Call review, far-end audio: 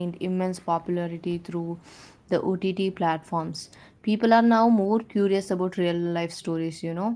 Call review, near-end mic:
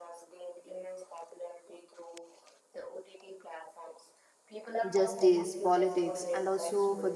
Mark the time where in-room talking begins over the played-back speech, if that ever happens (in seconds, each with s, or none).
4.9 s